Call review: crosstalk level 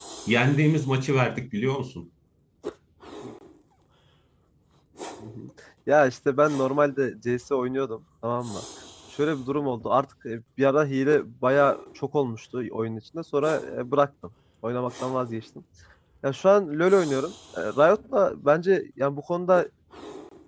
none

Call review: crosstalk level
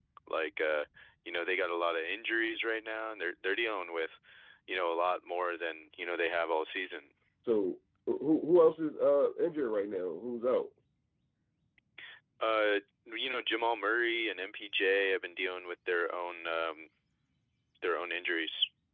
none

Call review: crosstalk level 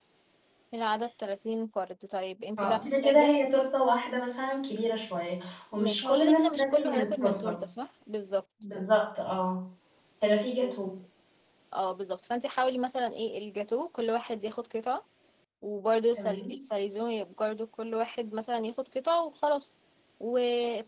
present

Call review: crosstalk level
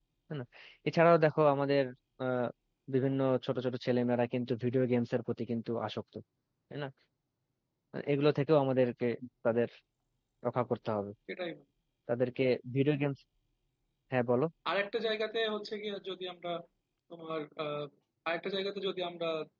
none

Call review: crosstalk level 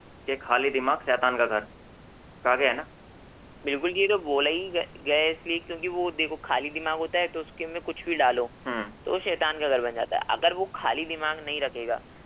none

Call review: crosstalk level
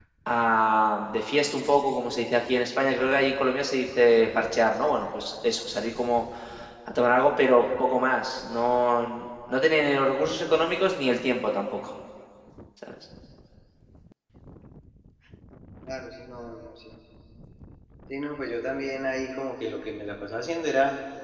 none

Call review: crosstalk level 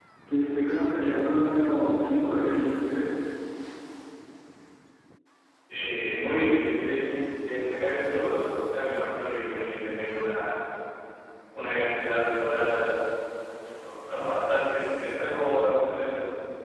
none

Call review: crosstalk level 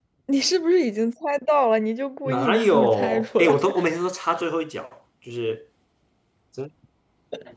present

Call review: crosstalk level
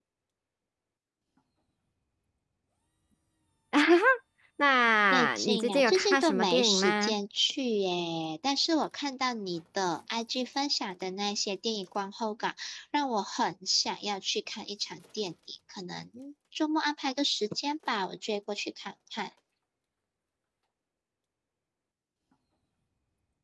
present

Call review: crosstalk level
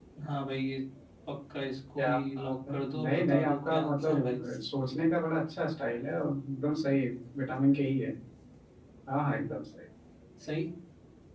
present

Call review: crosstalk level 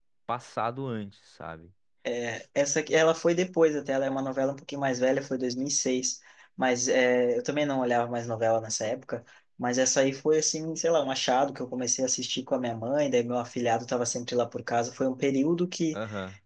none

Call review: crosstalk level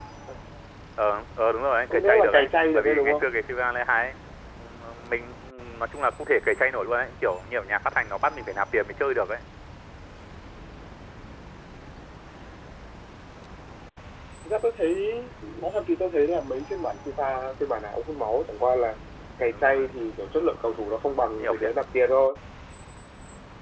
present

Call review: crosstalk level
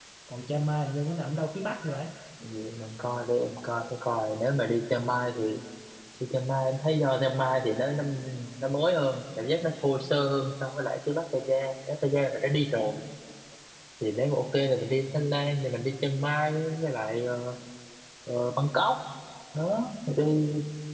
none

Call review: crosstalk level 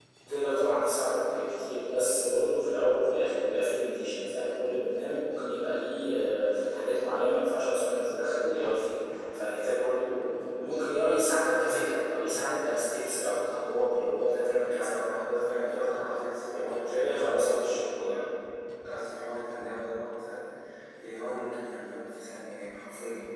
present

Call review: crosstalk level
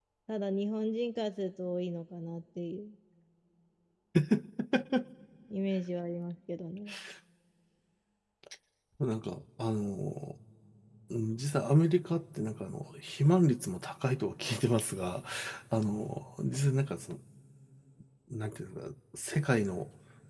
none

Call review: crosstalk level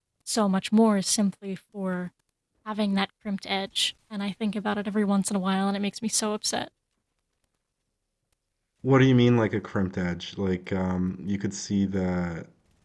none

